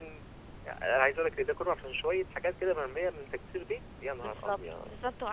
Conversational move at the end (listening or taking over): taking over